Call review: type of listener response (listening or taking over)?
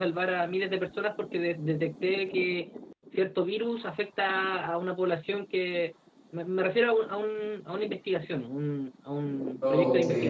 listening